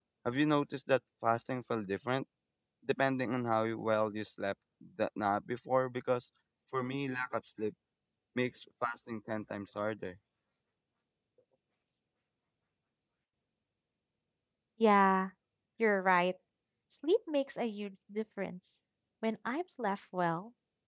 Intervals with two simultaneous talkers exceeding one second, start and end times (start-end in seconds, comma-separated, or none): none